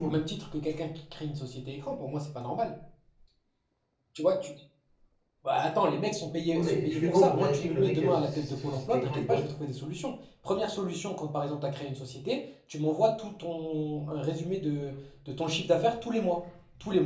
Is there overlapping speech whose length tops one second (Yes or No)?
Yes